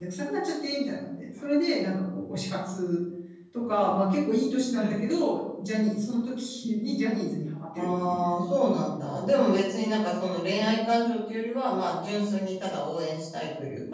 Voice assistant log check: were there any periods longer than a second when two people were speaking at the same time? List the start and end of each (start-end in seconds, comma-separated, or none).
none